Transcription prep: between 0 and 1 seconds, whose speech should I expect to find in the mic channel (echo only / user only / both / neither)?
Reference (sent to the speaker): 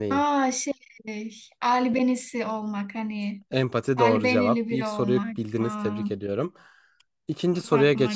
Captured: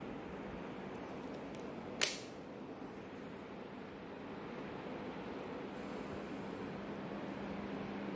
neither